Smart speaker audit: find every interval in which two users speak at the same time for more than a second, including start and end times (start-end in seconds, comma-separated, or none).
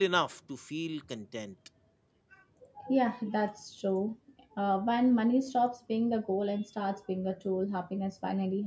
none